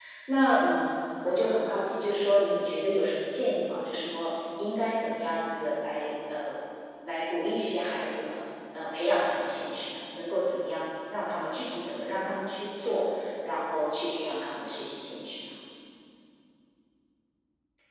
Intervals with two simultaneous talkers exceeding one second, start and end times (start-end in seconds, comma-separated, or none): none